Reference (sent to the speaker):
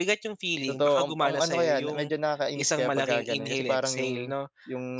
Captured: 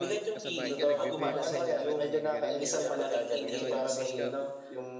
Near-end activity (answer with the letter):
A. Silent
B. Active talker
B